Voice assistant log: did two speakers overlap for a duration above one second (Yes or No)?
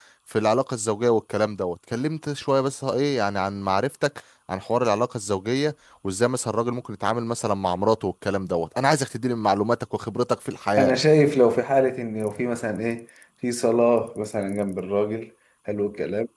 No